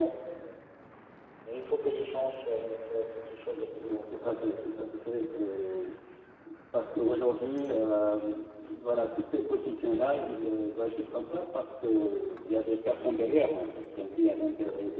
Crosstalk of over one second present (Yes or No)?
Yes